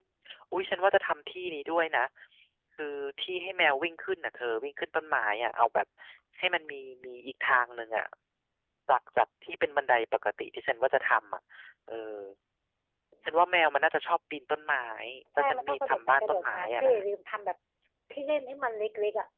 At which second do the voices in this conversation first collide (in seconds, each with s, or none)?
15.4 s